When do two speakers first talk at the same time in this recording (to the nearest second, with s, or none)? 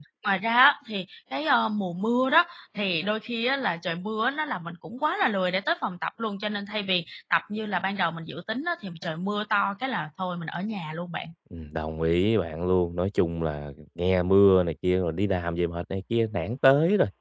none